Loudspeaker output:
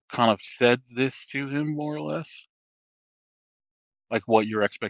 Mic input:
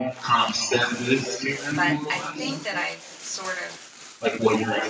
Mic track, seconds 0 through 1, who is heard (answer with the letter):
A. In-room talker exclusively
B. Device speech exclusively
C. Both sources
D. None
B